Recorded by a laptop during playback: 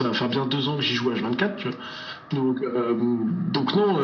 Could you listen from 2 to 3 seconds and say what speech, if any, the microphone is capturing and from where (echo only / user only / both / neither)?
echo only